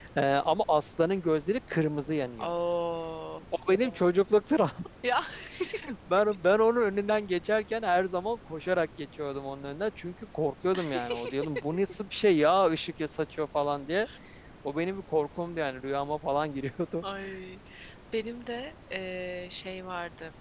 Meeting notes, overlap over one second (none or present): none